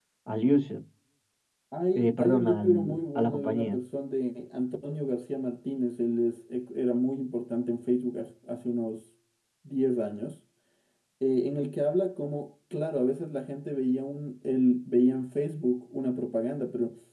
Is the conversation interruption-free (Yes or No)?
No